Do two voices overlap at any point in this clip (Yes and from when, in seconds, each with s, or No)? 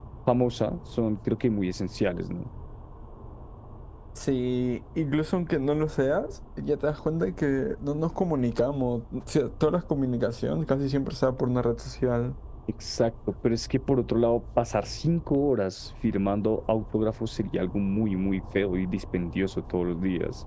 No